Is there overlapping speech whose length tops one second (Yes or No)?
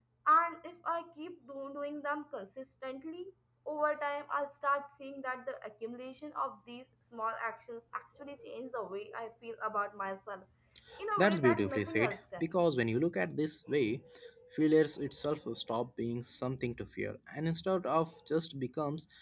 Yes